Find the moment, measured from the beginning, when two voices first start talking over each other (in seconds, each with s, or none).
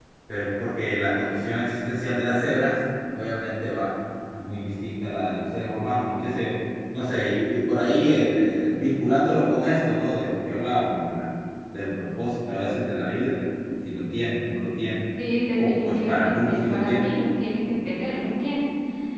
15.5 s